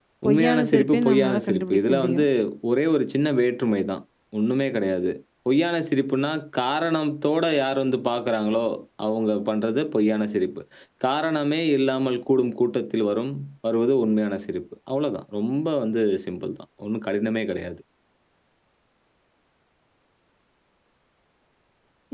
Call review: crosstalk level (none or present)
present